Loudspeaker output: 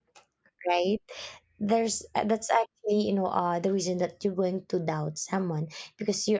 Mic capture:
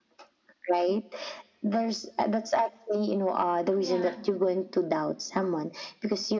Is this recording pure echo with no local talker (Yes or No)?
No